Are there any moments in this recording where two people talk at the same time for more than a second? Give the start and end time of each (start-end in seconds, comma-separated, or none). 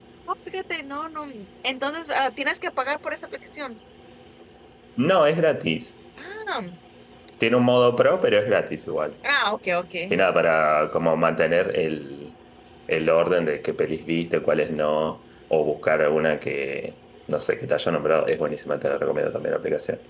none